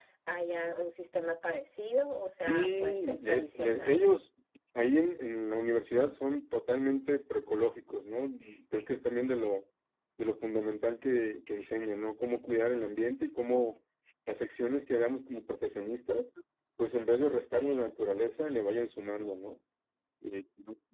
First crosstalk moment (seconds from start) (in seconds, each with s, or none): 2.5 s